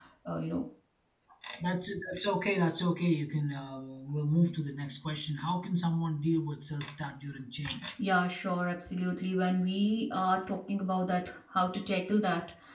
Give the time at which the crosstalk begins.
none

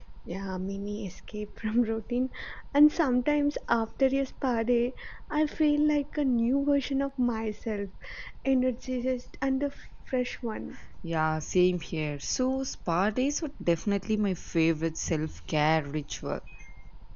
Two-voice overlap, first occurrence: none

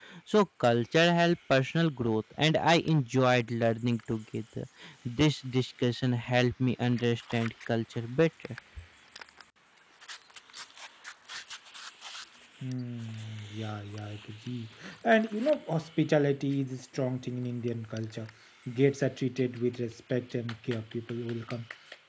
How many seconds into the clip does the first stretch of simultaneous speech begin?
none

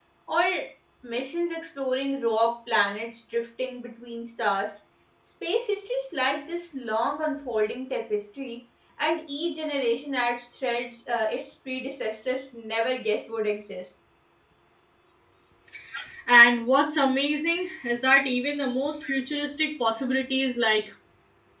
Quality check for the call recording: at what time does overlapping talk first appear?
none

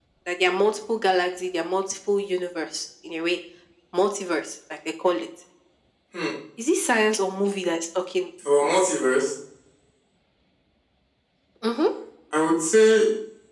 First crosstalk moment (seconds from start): none

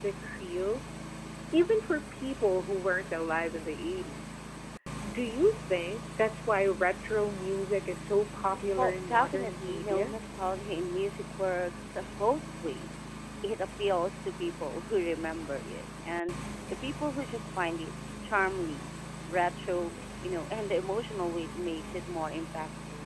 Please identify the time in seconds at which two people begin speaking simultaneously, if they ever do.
8.8 s

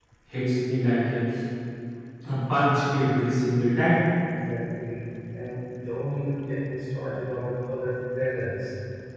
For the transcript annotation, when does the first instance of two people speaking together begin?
none

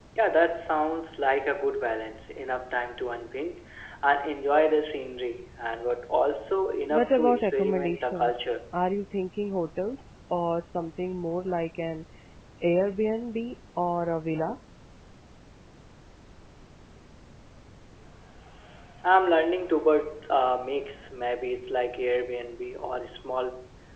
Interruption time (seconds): 6.9 s

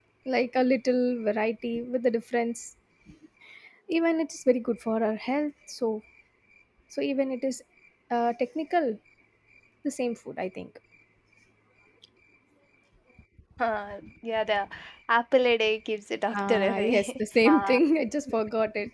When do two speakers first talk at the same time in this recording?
16.3 s

